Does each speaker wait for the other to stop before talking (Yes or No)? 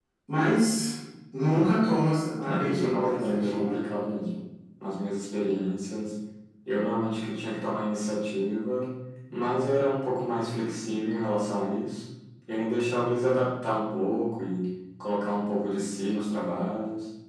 No